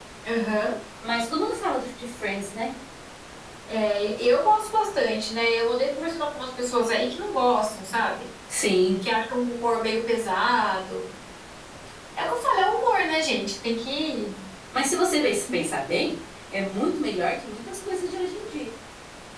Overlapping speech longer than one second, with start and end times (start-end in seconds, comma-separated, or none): none